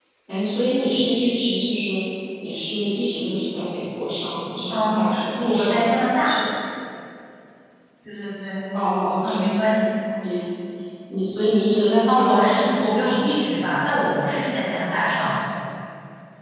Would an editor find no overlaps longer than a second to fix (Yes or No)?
No